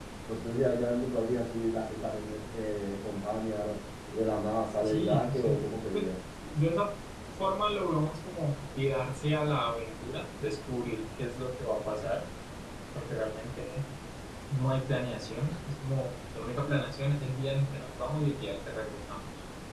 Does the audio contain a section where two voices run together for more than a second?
Yes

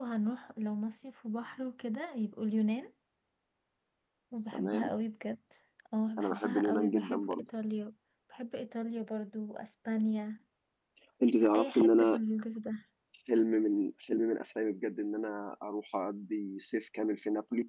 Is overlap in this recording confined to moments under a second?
No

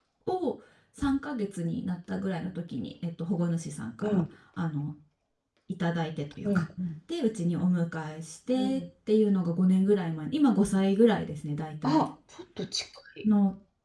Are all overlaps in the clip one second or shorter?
Yes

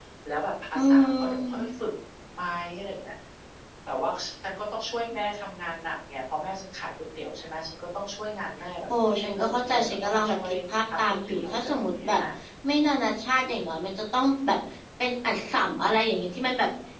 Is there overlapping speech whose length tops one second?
Yes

